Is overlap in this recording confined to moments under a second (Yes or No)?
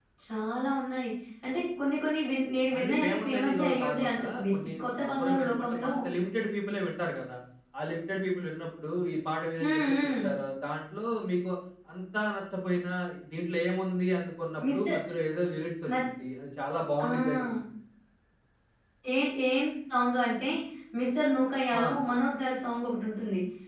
No